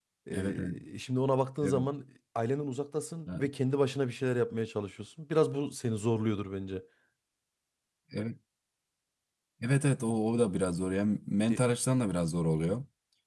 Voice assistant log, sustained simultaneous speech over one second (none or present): none